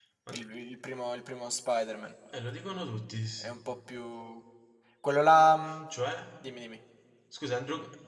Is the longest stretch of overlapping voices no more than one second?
Yes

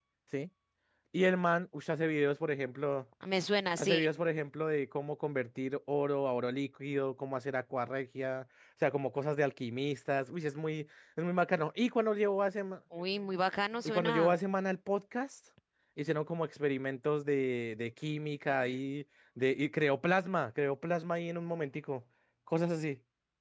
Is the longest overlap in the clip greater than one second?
No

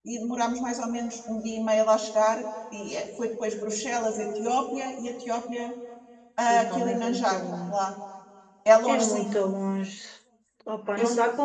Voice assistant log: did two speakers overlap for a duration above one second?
Yes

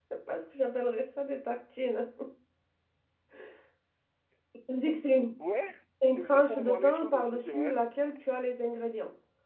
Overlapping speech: Yes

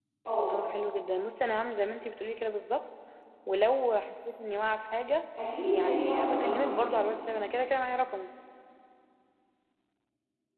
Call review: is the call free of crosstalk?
No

